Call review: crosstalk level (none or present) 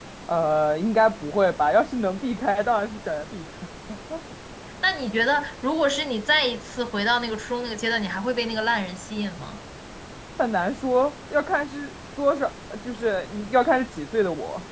none